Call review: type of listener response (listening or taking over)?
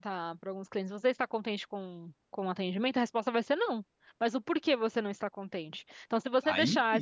listening